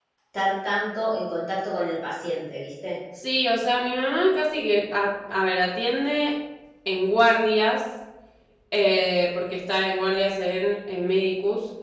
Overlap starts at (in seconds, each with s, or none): none